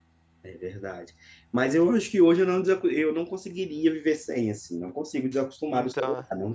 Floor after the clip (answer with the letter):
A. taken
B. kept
B